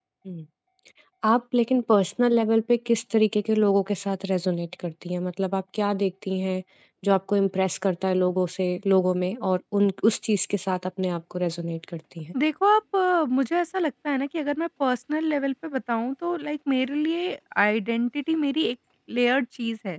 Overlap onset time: none

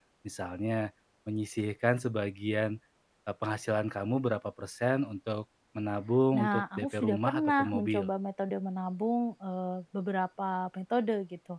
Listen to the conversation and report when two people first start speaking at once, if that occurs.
6.3 s

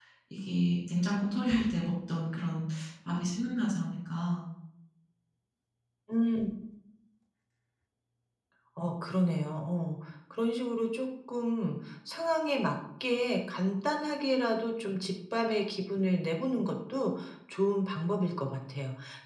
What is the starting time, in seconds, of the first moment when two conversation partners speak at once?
none

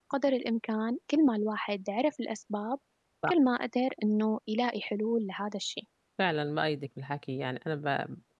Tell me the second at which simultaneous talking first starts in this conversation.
none

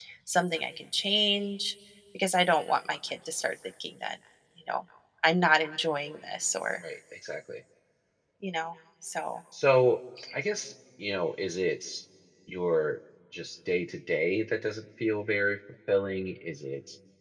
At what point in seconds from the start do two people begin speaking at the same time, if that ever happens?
none

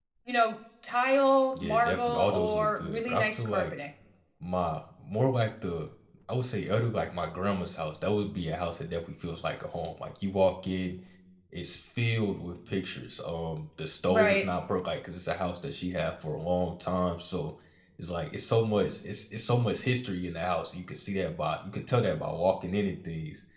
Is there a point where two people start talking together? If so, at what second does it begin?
1.6 s

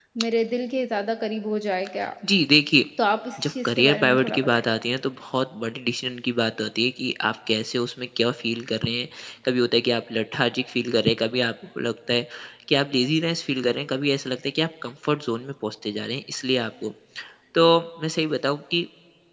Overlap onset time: 3.4 s

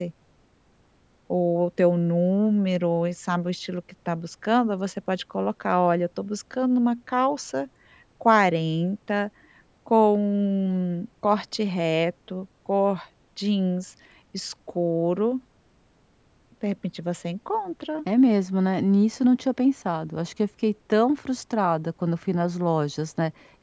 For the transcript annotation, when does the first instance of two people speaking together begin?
none

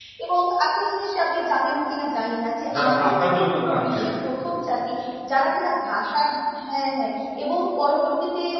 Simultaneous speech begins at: 2.7 s

